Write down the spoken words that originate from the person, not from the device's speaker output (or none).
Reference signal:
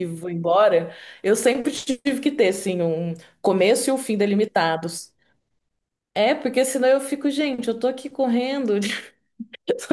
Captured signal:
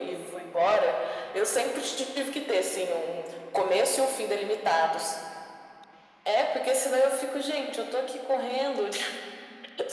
none